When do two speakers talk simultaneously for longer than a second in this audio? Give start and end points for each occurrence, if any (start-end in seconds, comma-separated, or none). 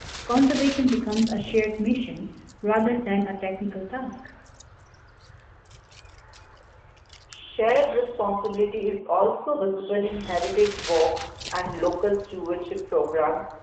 none